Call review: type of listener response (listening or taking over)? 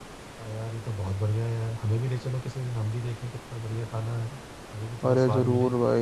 taking over